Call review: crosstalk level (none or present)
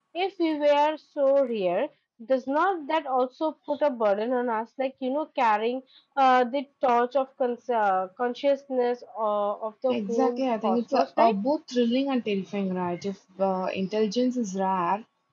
present